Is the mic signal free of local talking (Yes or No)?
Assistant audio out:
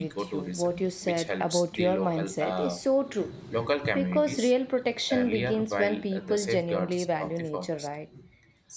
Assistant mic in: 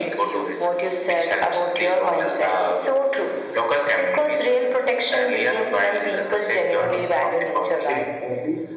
No